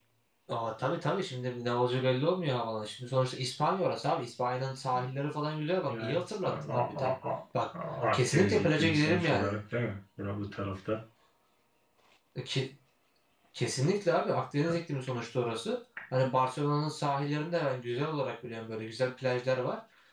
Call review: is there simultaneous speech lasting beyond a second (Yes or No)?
Yes